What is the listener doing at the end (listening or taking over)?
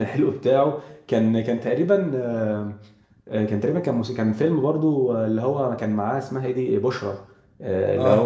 listening